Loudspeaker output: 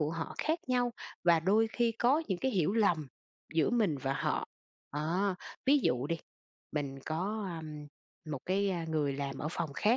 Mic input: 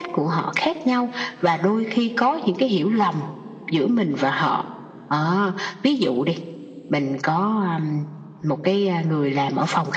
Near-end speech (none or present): none